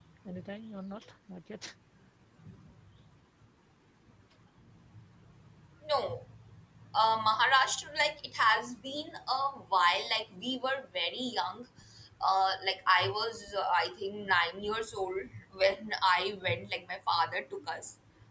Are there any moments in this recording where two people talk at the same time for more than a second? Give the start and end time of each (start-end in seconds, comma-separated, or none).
none